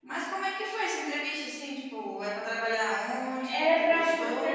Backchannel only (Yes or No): No